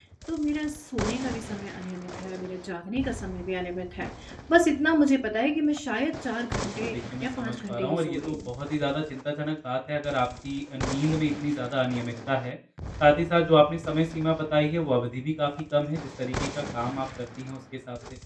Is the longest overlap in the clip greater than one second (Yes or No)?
Yes